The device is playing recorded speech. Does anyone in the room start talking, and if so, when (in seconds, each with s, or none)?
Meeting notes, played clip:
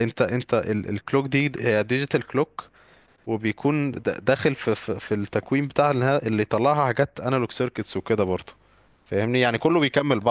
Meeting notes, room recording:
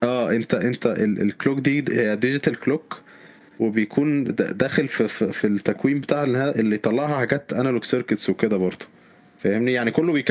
none